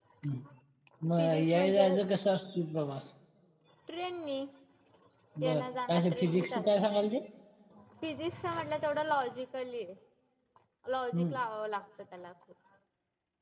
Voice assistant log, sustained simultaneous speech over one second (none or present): present